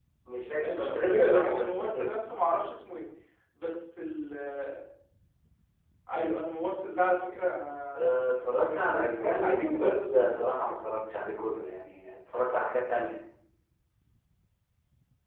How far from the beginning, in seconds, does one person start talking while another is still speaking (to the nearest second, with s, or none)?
1 s